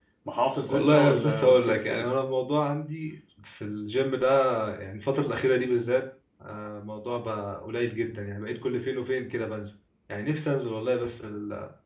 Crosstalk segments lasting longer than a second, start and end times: 0.7-2.1

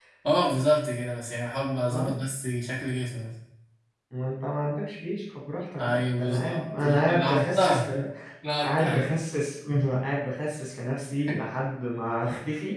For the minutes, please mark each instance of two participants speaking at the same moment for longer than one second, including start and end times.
5.8-7.9

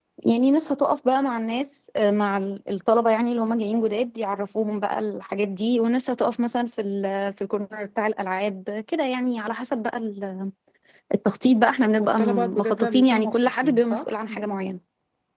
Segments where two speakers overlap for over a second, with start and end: 12.0-14.3

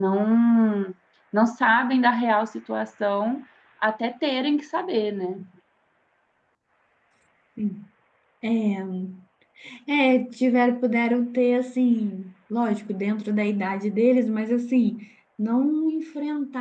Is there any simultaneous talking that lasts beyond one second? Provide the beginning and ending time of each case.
none

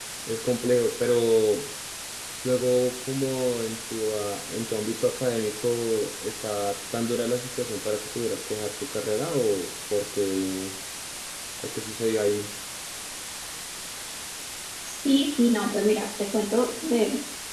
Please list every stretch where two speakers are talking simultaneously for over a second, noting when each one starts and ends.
none

